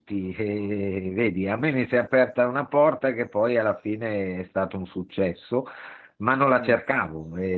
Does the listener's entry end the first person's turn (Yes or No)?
No